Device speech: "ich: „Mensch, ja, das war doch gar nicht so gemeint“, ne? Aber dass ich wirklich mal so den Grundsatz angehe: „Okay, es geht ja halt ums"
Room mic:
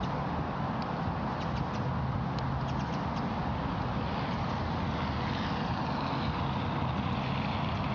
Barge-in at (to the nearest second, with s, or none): none